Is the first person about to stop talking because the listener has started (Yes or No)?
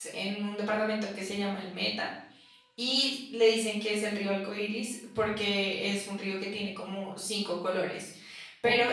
No